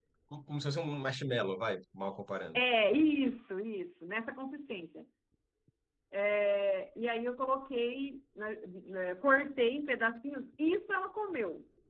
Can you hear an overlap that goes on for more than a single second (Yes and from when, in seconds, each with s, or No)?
No